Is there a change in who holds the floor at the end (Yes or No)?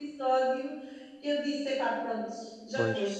Yes